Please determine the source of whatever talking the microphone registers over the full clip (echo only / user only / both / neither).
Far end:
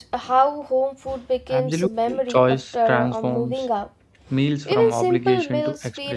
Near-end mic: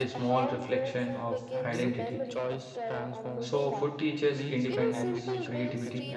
both